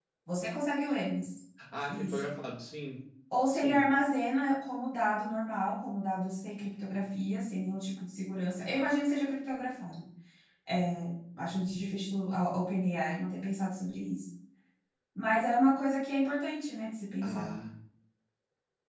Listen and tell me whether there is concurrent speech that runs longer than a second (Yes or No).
No